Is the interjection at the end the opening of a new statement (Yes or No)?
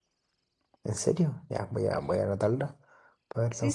Yes